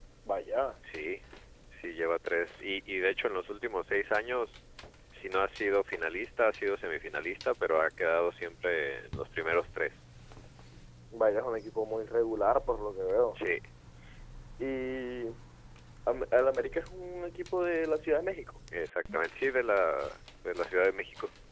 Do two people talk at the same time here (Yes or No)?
No